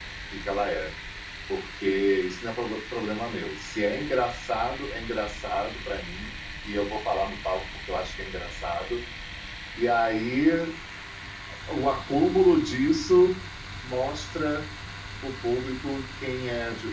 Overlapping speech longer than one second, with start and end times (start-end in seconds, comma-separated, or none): none